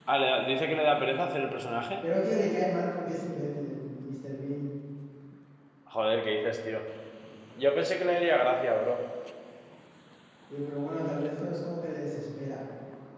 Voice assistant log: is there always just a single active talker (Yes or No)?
Yes